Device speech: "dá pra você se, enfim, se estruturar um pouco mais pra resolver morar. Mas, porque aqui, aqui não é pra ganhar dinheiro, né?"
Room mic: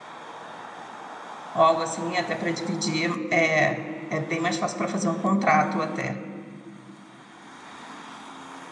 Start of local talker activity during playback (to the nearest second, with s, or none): 2 s